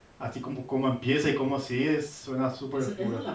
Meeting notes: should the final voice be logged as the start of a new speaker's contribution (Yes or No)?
Yes